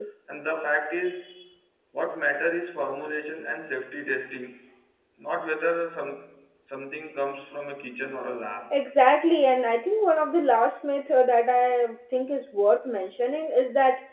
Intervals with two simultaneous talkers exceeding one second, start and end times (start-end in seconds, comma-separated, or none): none